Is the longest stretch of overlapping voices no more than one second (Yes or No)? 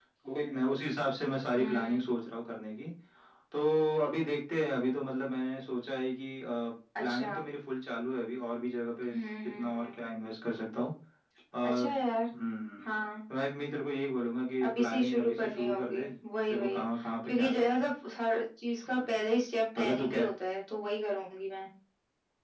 No